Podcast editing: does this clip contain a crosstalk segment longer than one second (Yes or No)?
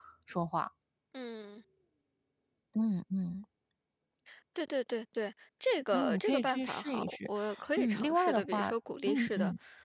Yes